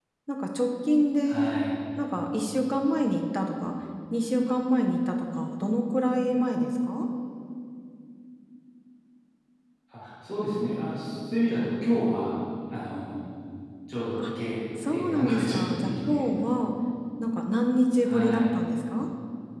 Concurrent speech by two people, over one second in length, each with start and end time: 14.9-16.2

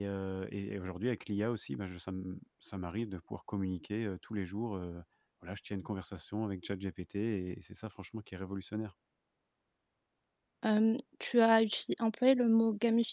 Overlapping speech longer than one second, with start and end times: none

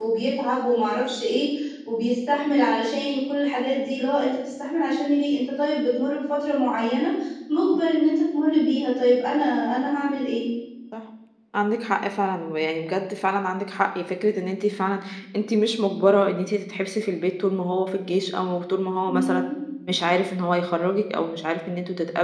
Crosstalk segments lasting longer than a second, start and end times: none

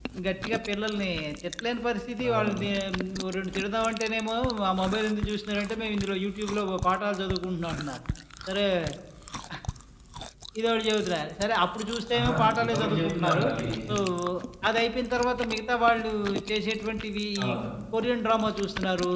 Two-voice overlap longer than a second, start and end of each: 12.2-13.4

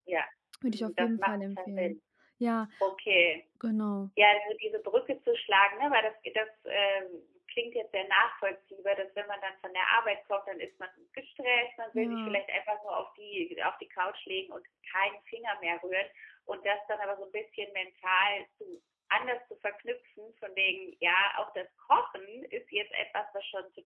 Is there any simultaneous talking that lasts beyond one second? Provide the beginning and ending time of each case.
0.7-1.9

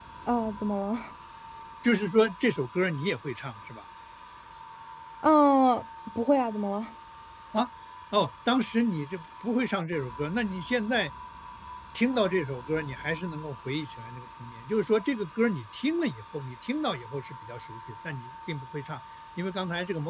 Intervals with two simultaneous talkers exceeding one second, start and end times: none

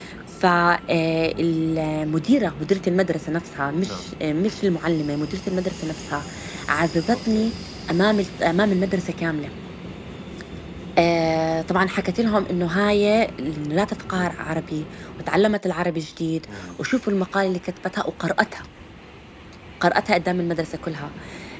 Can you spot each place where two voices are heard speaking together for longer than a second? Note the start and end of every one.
none

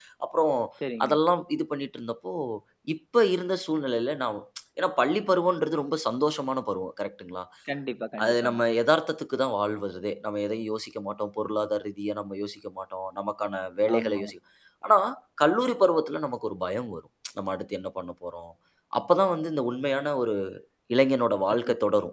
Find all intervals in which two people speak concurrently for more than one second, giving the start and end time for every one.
none

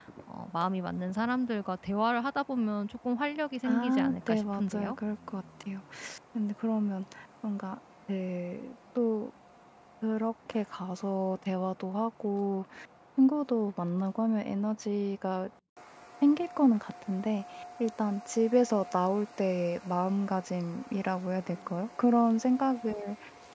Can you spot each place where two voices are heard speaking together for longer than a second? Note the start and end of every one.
3.6-5.0

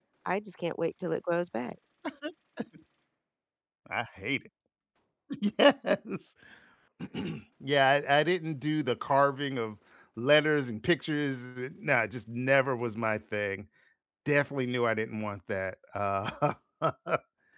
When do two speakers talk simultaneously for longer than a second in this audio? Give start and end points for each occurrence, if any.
none

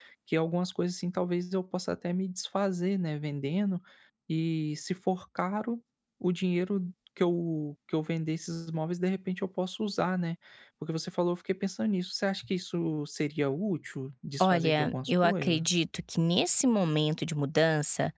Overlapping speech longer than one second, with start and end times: 14.4-15.6

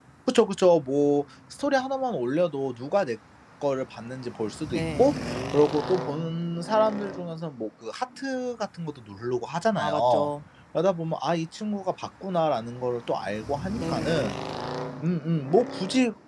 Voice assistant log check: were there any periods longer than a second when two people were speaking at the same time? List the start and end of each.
none

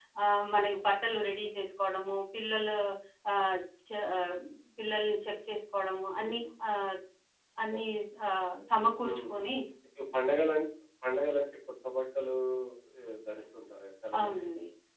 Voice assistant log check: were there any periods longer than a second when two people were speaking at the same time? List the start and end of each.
none

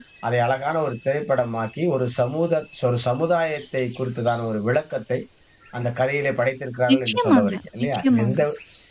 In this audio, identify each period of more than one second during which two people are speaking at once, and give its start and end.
6.9-8.4

